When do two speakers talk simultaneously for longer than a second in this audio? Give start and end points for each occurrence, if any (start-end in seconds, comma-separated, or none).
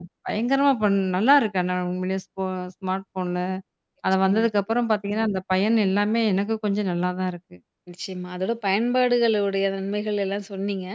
none